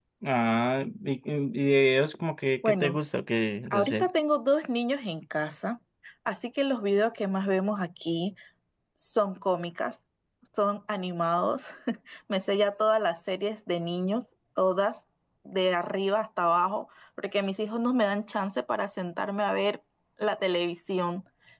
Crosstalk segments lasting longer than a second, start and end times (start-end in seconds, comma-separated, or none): none